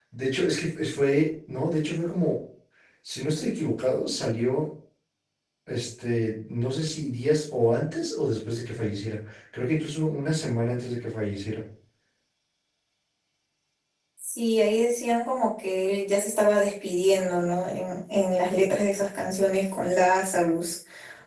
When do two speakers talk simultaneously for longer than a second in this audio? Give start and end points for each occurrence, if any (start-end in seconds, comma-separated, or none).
none